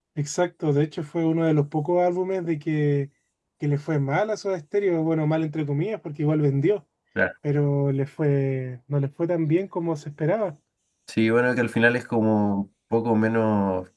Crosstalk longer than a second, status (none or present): none